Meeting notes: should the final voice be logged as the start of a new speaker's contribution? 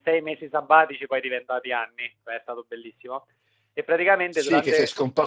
Yes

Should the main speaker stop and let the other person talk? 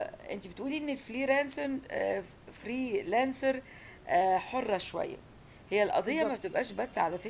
No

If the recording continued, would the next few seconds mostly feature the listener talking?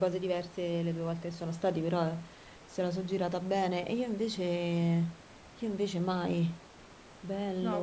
Yes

